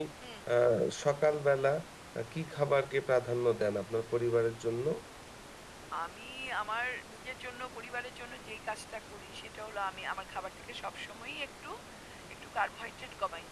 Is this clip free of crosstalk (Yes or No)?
Yes